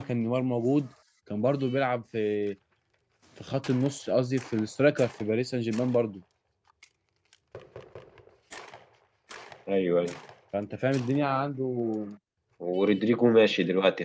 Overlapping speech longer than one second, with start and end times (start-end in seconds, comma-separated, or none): none